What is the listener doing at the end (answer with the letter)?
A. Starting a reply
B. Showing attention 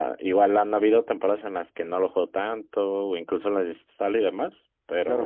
A